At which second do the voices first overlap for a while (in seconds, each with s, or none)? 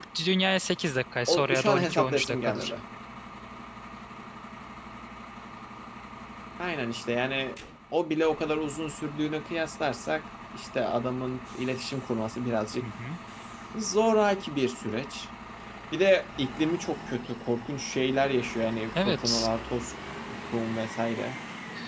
1.3 s